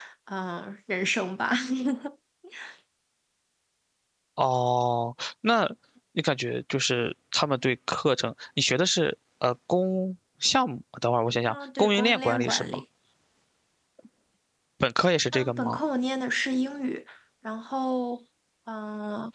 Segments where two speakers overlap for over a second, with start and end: 11.5-12.8

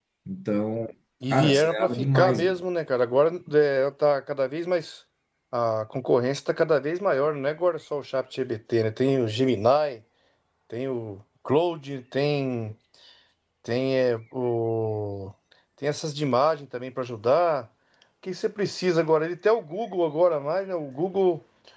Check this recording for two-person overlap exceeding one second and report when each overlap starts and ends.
1.3-2.6

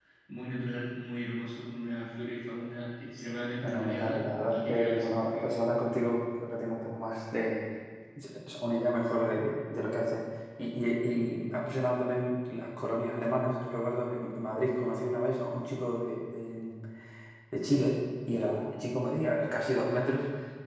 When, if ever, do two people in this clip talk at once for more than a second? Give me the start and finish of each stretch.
3.6-5.6

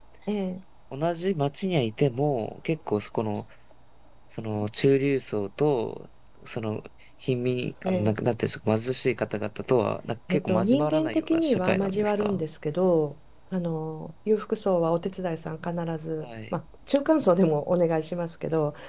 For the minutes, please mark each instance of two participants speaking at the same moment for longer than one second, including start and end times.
10.3-12.4

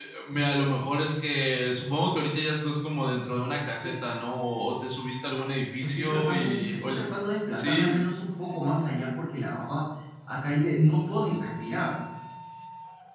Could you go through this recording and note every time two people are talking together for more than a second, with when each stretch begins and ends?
5.8-7.0

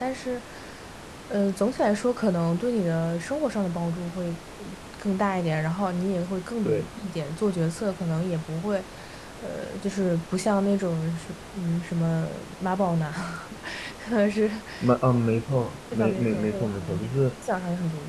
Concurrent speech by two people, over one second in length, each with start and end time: 15.9-17.2

